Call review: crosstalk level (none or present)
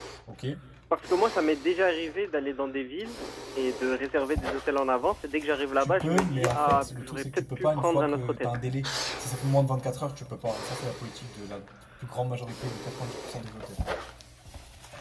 present